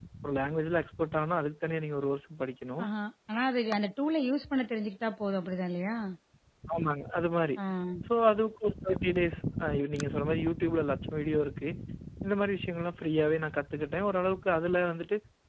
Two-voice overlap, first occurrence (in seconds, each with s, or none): none